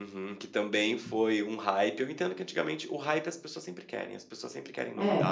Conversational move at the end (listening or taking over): listening